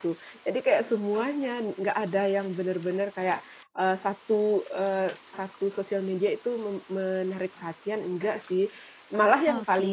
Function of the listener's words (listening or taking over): listening